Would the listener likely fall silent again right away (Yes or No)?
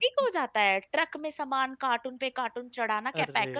Yes